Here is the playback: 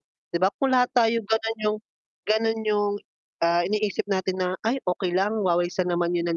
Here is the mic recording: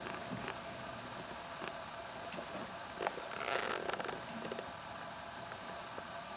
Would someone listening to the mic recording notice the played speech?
No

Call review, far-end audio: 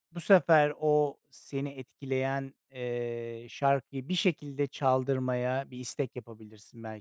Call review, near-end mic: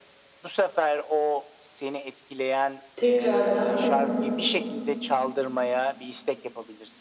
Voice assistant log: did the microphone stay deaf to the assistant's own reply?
No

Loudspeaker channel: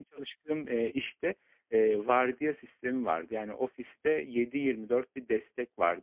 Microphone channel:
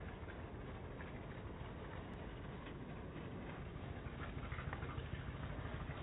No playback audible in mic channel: Yes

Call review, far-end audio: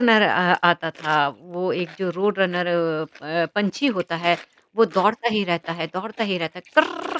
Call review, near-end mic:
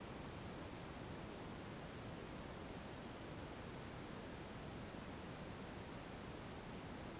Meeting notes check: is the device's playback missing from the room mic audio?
Yes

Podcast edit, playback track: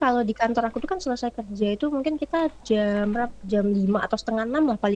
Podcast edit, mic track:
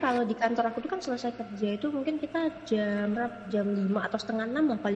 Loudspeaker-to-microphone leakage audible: Yes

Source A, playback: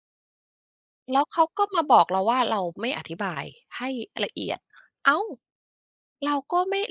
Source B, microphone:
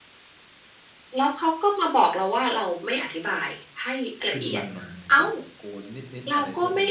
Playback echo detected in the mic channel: Yes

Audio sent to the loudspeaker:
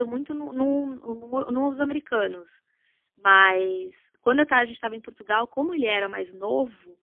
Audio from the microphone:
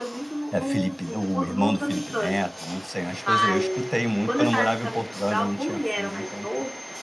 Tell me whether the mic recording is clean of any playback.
No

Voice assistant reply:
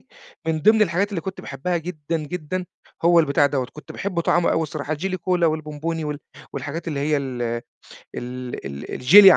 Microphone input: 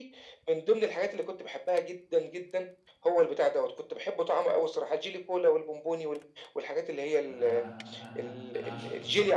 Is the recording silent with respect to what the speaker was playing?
No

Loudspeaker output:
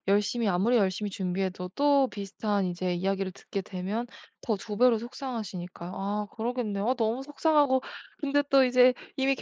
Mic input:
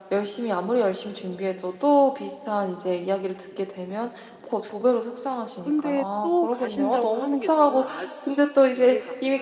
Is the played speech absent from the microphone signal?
No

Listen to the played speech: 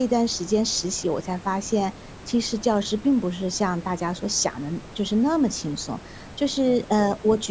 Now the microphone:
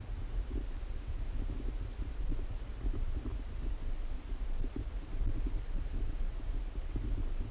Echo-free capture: Yes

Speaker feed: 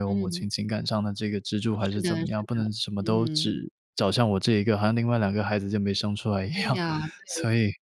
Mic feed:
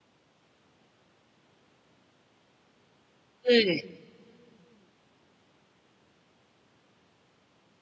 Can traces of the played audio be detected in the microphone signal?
No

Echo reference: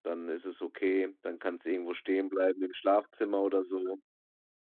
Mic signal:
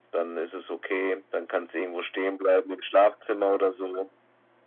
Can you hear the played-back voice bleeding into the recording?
Yes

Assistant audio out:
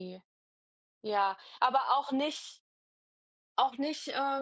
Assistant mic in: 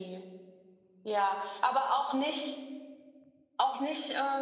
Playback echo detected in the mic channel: Yes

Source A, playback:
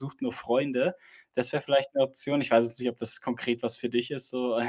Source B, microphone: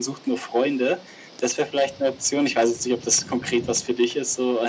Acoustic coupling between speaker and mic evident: Yes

